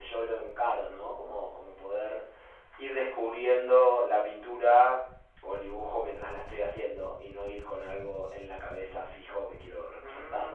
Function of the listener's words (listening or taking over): taking over